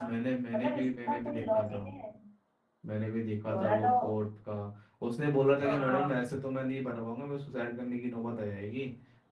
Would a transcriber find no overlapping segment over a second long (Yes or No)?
No